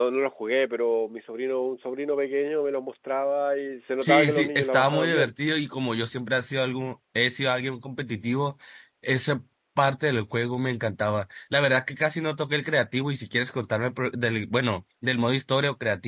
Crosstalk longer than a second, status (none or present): present